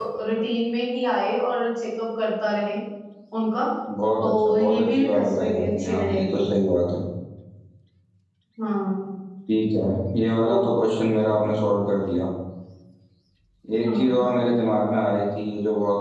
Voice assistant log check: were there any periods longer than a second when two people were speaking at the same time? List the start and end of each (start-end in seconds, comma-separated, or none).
4.2-6.4